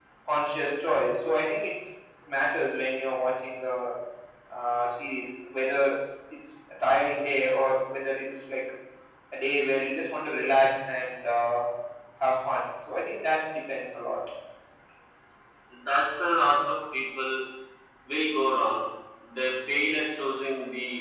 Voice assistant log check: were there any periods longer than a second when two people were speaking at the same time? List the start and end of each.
none

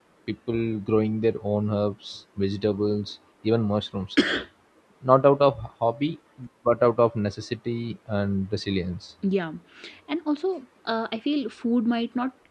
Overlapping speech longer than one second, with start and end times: none

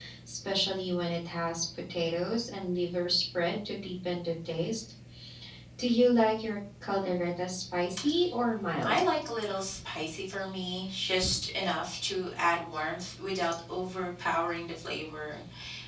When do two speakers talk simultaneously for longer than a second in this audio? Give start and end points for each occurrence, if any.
none

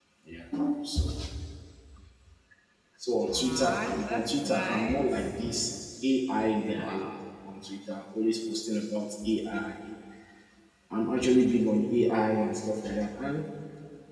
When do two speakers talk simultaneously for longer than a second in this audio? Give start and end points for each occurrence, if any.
3.3-5.3

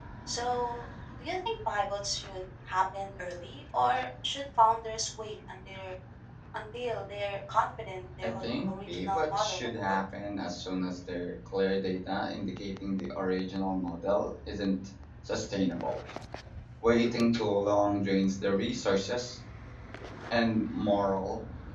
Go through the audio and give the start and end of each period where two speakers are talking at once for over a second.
8.2-9.9

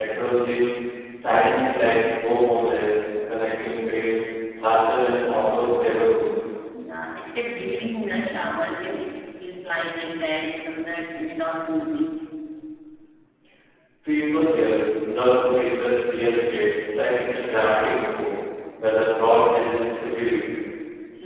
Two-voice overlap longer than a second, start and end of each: none

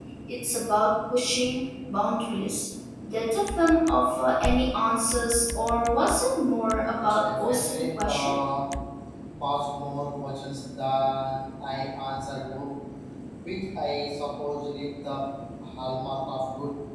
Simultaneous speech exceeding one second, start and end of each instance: 7.0-8.3

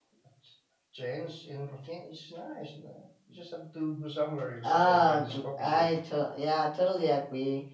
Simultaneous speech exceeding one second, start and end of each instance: 4.6-5.9

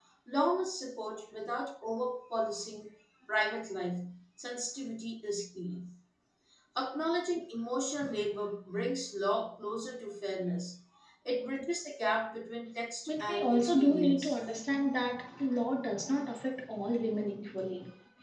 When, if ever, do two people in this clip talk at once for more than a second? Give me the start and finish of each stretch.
13.1-14.4

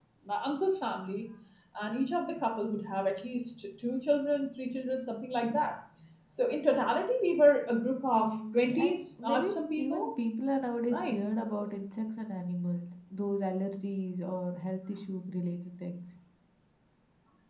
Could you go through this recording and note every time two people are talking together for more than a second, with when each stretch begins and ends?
8.2-10.1

